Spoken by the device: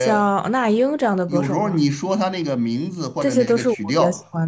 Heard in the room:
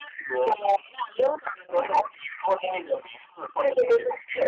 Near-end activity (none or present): none